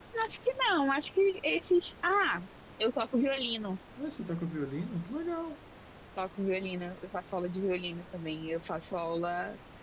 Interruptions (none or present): none